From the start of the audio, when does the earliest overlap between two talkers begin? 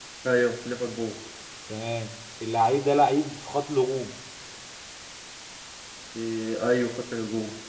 none

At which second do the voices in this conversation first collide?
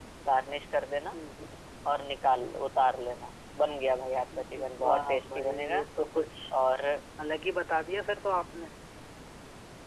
4 s

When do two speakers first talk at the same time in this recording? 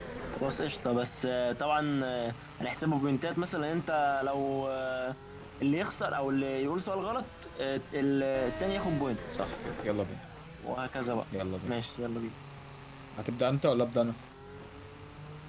none

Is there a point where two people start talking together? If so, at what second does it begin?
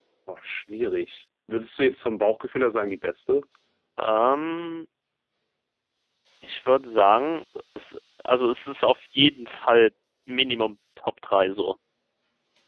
none

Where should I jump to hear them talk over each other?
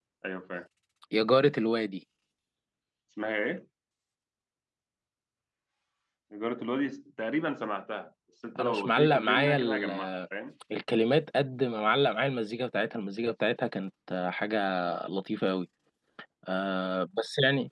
9 s

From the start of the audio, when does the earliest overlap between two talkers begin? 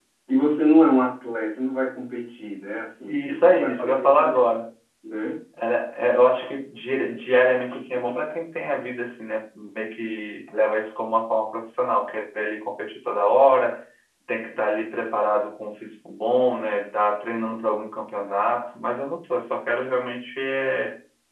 3 s

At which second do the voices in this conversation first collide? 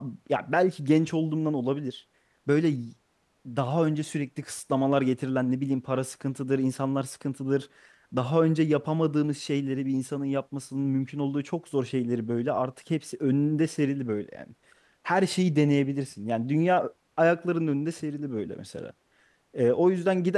none

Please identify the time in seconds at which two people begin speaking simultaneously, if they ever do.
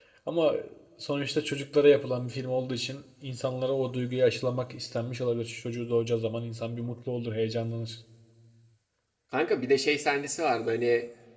none

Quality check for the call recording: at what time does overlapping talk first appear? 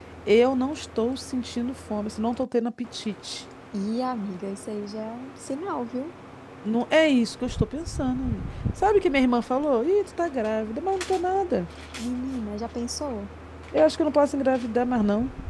none

